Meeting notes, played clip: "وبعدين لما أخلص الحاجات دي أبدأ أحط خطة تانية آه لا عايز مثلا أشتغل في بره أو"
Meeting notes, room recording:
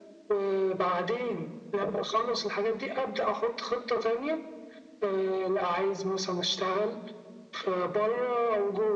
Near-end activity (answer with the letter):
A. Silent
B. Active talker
A